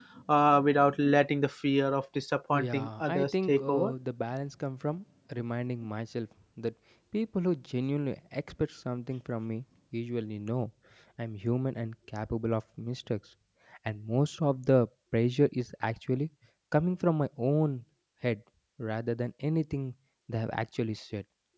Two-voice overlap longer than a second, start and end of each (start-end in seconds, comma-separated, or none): 2.6-3.9